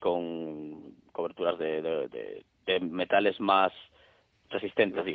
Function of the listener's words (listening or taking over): listening